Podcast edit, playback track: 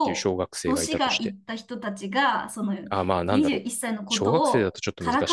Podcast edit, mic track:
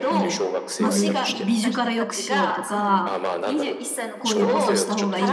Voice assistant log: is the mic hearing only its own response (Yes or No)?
No